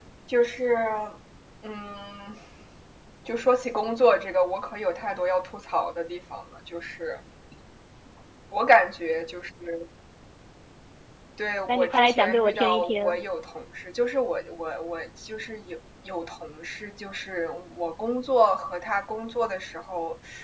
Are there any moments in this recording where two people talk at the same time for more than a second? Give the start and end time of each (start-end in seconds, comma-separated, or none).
11.7-13.2